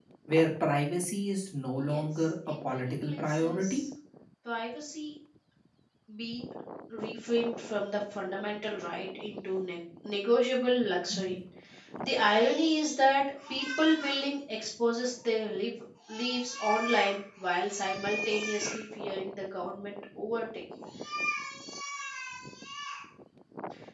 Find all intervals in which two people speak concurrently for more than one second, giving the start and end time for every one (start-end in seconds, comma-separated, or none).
1.8-3.8